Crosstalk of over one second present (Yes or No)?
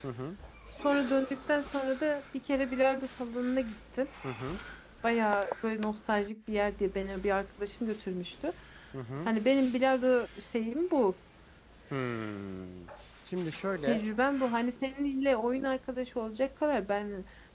No